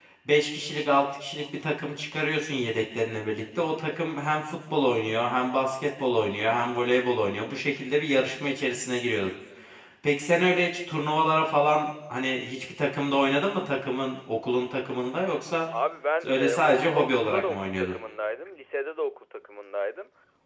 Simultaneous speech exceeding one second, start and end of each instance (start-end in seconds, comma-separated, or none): 16.2-17.9